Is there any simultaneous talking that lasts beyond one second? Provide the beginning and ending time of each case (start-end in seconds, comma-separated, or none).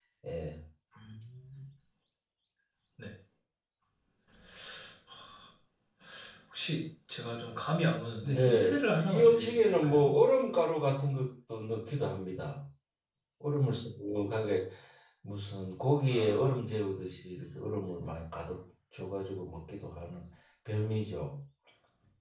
8.2-10.1